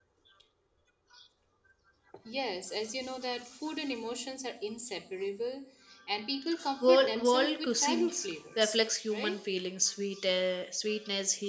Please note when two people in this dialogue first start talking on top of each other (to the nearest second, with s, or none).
7 s